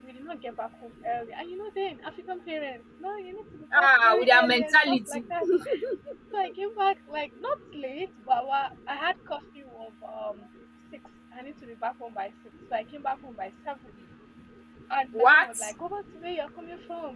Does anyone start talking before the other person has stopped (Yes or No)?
Yes